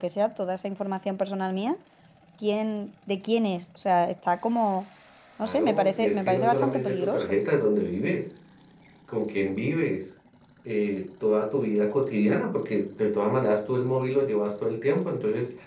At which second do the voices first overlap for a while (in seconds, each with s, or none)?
5.4 s